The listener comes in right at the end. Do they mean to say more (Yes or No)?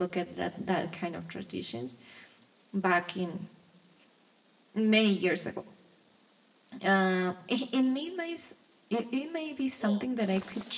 No